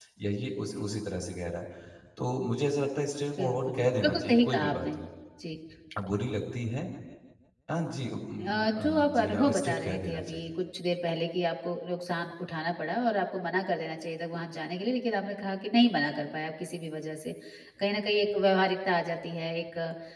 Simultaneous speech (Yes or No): Yes